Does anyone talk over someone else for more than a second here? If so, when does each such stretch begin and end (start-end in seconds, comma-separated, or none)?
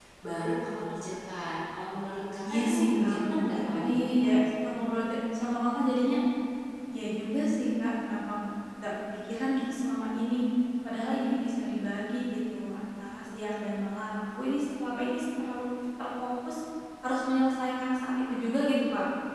2.5-4.3